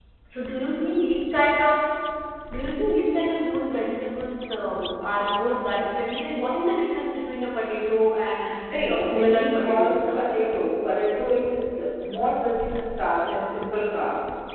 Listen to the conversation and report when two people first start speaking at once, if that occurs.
8.4 s

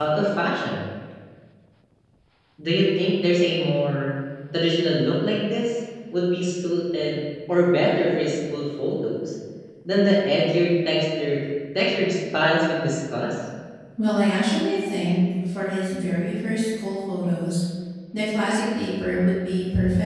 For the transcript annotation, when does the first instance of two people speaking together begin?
none

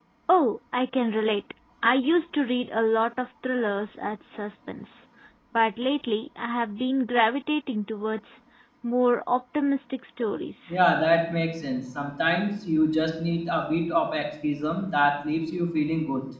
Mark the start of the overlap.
none

